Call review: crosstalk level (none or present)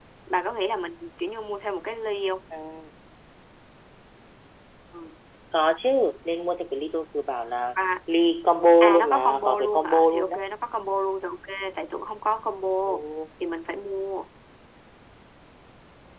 present